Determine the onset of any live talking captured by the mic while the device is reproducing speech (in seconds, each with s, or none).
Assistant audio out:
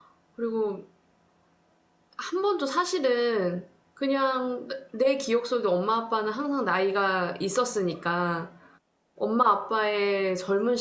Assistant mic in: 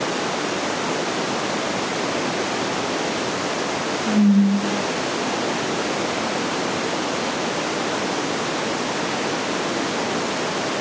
4.0 s